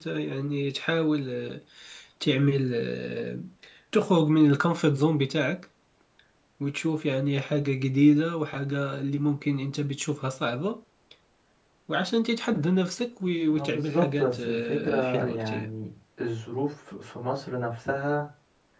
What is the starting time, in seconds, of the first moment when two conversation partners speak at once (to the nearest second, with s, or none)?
14 s